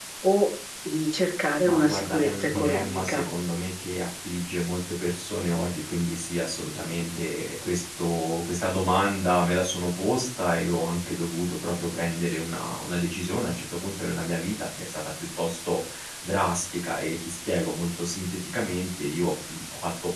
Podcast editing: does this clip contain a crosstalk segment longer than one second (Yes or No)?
Yes